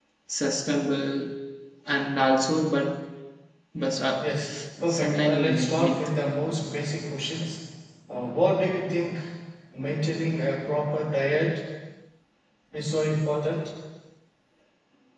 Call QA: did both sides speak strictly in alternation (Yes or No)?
No